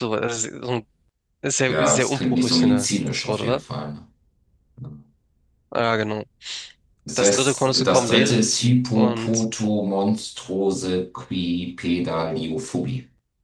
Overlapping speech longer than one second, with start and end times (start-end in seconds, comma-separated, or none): 1.7-3.6, 7.2-8.4